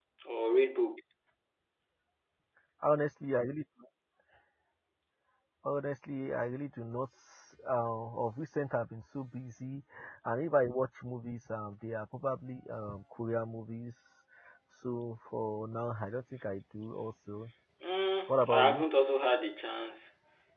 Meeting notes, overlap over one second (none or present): none